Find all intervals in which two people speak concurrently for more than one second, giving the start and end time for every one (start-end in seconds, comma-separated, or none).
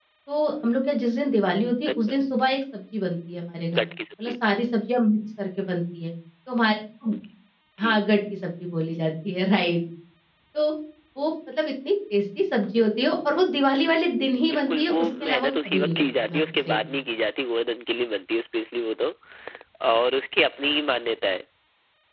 14.5-16.8